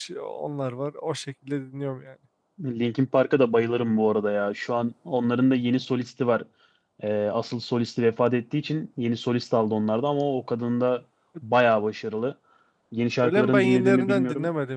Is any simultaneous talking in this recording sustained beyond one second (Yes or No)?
Yes